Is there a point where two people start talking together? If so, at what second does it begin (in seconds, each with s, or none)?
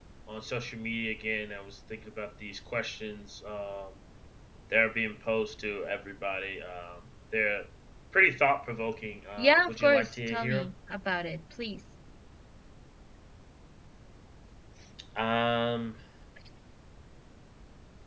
9.4 s